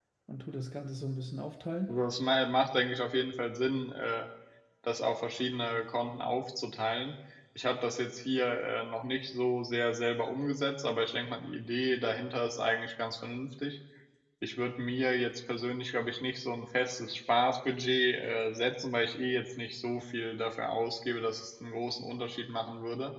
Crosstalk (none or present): none